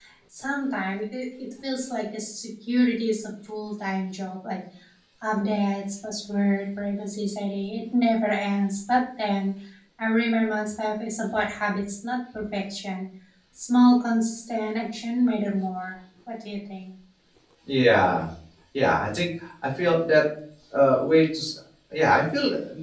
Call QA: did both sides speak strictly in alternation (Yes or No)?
Yes